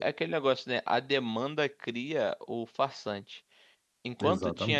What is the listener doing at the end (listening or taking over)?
listening